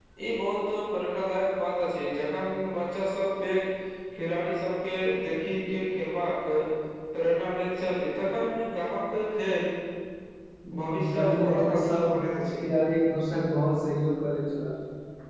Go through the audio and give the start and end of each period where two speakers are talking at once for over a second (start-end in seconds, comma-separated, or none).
10.8-12.1